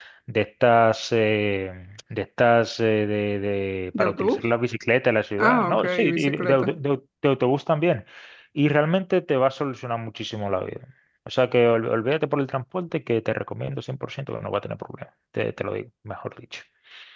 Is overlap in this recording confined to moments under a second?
No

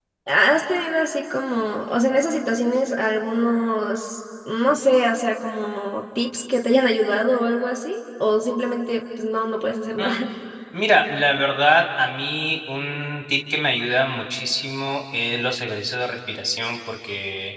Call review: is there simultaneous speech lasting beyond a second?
No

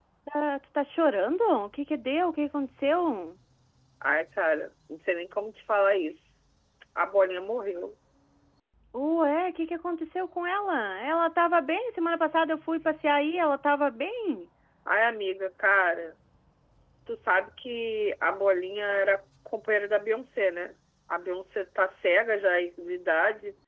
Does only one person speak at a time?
Yes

